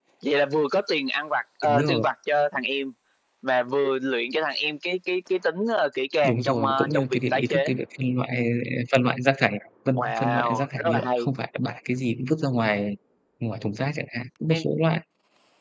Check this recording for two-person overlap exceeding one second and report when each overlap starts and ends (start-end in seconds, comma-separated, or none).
6.3-7.7, 10.0-11.3